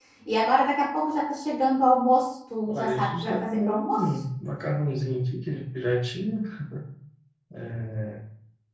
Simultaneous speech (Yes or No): Yes